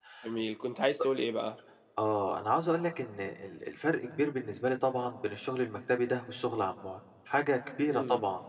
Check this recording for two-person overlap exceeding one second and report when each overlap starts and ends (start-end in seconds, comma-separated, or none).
none